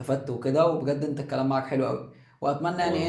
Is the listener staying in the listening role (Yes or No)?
Yes